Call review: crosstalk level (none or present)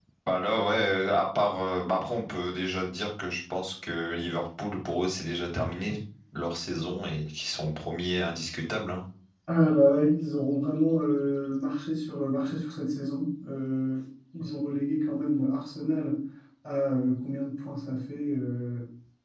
none